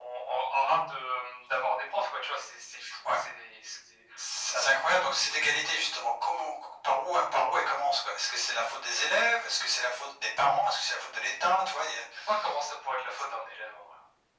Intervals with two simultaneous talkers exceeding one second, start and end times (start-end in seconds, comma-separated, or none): none